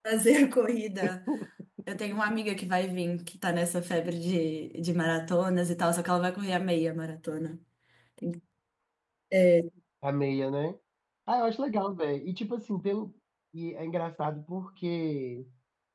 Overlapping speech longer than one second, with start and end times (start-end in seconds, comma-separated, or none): none